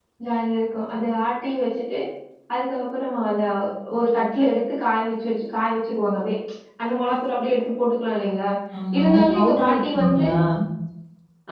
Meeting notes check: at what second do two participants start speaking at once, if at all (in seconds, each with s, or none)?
9.0 s